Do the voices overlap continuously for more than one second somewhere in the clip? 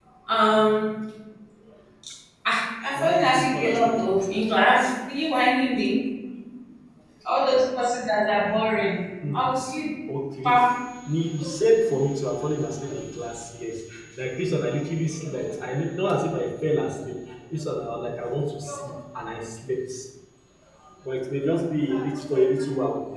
Yes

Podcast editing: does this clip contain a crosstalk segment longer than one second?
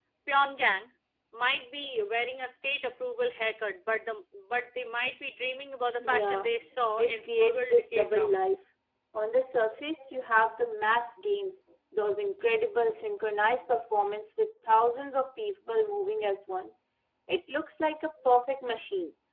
Yes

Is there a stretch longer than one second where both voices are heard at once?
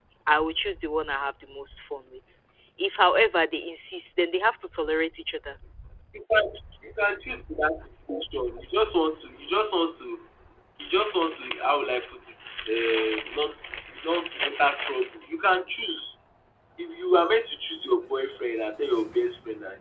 No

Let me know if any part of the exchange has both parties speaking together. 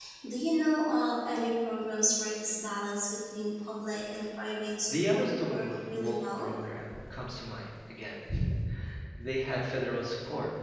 Yes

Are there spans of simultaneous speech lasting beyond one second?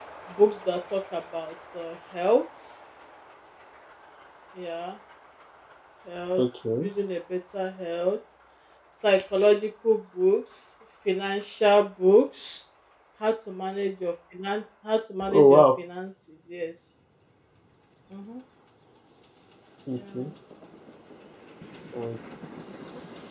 No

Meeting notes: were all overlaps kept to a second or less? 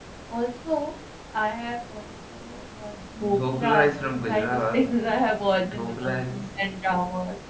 No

